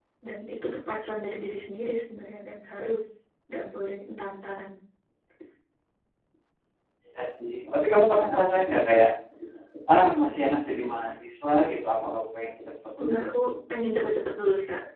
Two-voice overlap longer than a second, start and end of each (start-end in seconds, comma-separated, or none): none